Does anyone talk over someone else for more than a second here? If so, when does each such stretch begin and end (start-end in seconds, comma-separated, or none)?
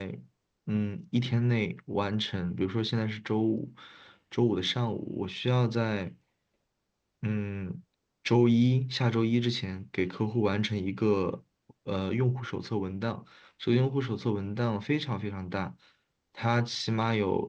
none